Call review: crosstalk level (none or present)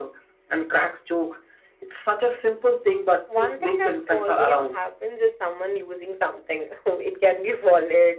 present